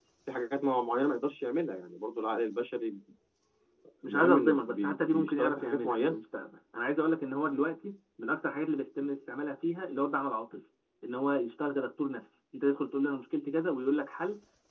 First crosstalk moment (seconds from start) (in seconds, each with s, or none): 4.0 s